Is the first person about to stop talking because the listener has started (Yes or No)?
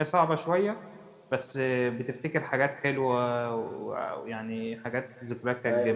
No